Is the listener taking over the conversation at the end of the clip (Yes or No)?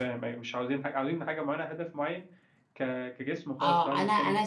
Yes